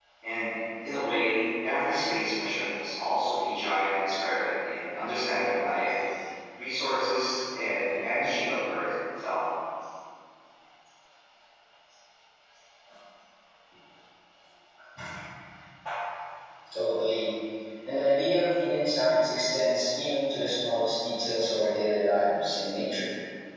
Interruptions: none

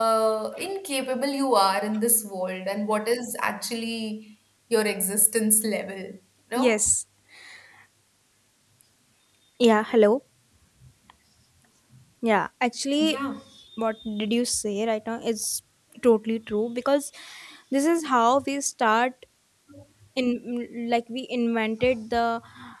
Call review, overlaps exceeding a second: none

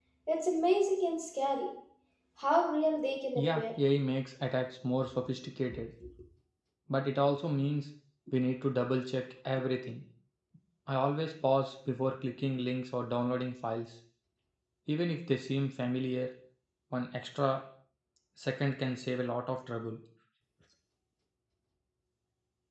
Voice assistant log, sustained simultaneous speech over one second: none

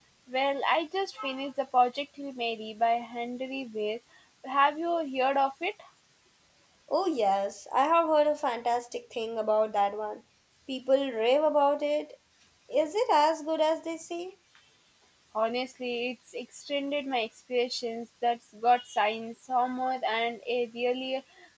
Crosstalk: none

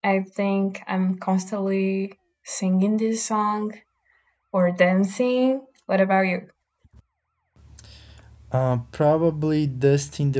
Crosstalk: none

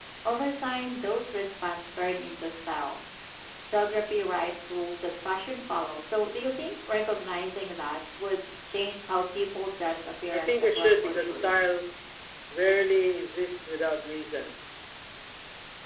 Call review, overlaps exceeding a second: present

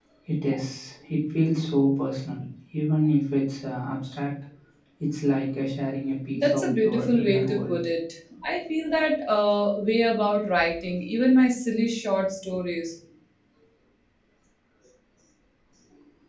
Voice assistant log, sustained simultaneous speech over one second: present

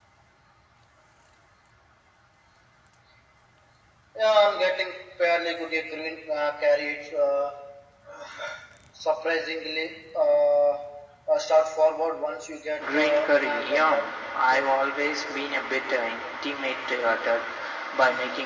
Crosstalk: present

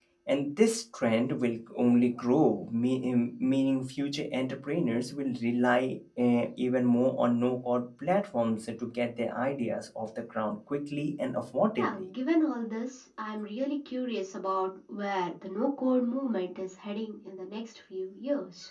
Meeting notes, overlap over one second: none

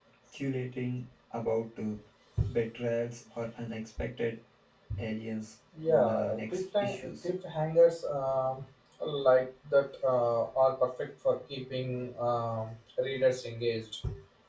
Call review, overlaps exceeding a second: present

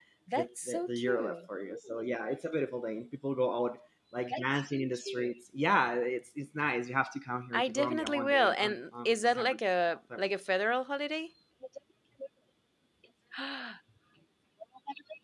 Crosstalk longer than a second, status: present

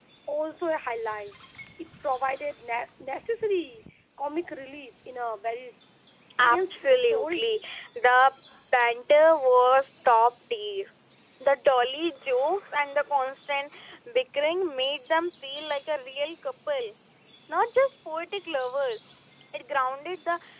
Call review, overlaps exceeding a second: present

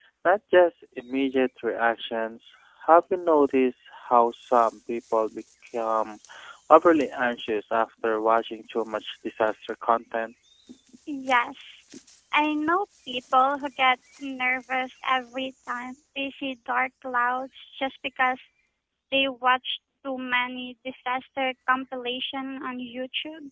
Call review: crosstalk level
none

